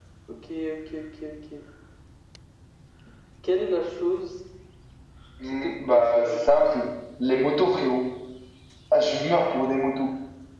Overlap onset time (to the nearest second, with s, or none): 5 s